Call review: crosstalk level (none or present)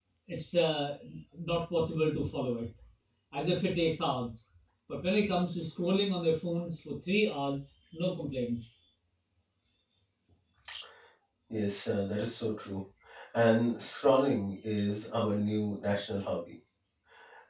none